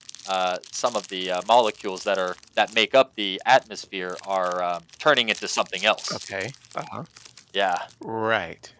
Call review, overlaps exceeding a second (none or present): none